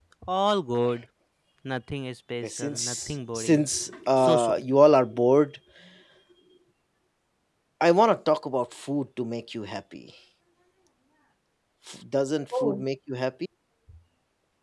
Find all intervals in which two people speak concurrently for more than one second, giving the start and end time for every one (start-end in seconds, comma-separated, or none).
2.4-3.6